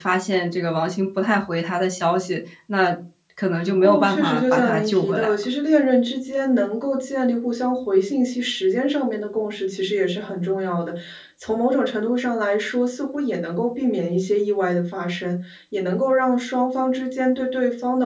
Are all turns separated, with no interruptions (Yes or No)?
No